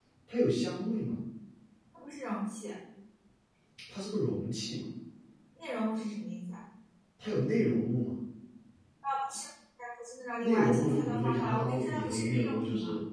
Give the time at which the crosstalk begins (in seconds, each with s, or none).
10.4 s